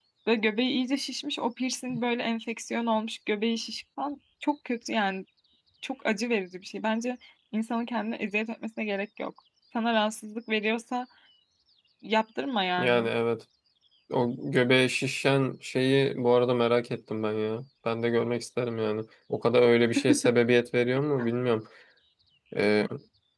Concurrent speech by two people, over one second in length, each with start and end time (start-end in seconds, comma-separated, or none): none